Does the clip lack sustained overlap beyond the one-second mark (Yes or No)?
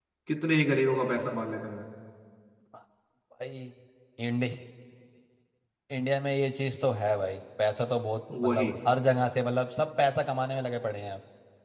Yes